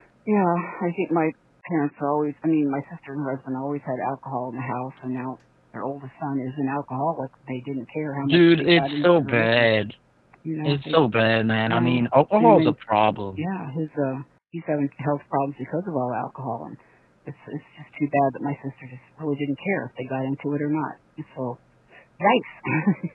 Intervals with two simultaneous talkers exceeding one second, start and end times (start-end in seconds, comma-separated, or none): 8.2-9.7